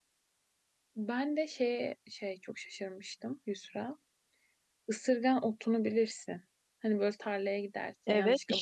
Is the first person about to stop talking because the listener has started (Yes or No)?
Yes